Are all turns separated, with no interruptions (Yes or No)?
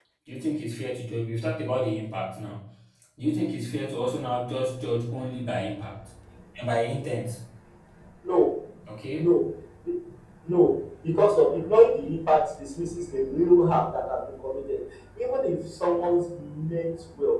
Yes